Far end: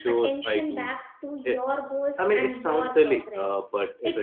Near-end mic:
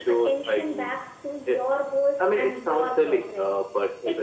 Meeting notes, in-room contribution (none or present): none